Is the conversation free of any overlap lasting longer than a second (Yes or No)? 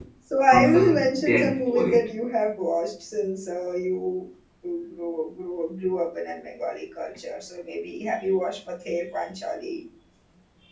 No